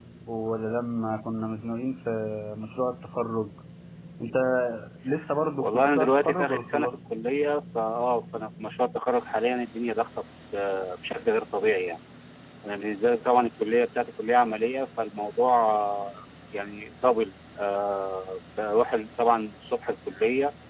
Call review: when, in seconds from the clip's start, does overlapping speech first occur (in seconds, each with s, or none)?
5.6 s